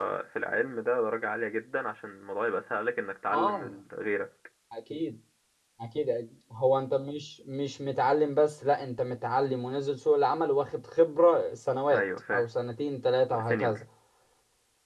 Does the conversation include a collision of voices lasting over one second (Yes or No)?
No